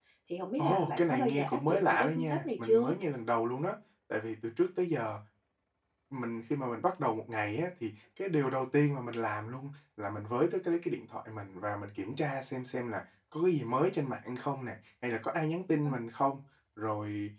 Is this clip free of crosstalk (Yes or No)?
No